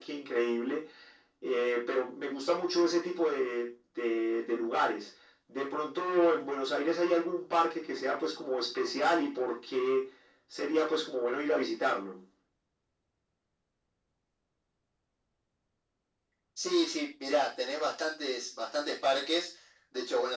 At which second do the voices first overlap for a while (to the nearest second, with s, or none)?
none